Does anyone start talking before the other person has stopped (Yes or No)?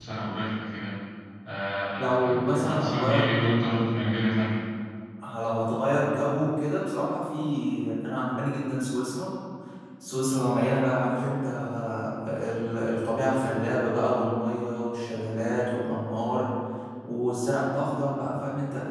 Yes